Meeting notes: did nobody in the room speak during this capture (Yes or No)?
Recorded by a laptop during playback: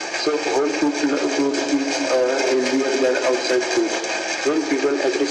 Yes